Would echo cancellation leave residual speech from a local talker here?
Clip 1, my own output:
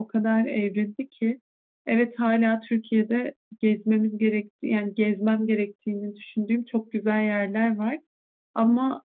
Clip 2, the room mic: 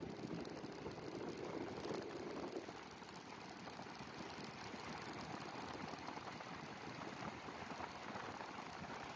No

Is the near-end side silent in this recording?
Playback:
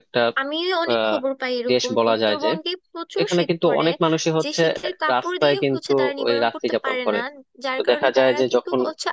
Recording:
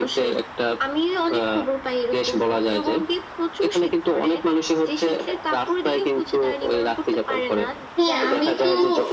No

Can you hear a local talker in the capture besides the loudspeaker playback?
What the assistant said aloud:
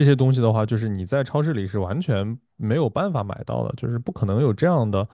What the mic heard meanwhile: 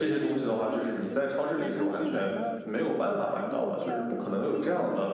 Yes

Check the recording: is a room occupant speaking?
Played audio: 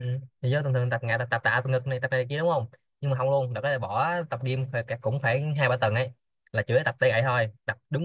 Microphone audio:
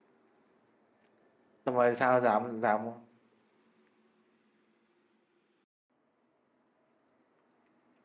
Yes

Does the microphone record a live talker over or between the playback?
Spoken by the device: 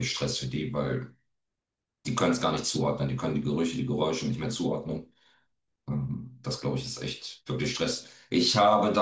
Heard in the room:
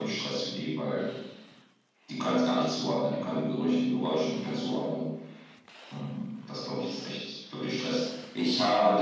No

